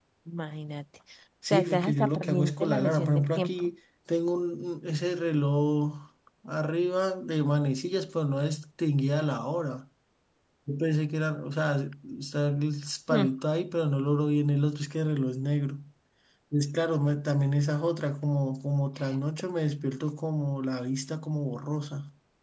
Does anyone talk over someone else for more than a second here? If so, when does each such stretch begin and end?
1.5-3.7

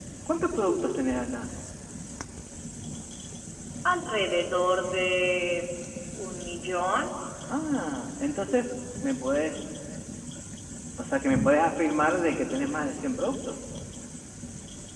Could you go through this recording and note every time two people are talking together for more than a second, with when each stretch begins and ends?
none

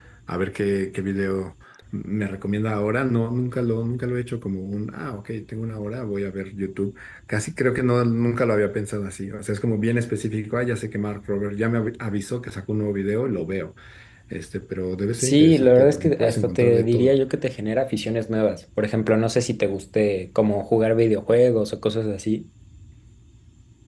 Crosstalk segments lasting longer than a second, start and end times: 15.2-17.1

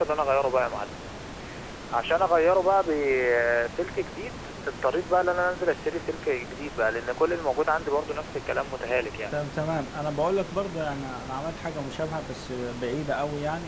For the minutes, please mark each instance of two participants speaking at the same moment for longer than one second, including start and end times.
none

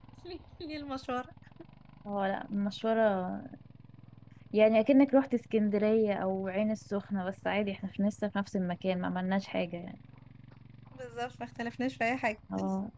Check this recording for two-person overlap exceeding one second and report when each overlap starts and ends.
none

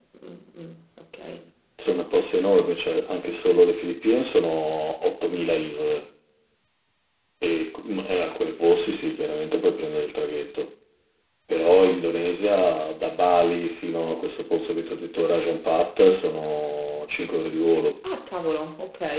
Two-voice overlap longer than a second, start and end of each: none

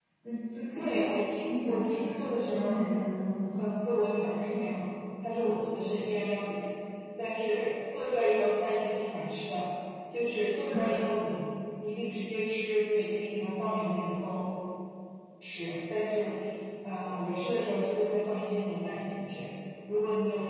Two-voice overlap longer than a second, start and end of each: 0.7-2.8

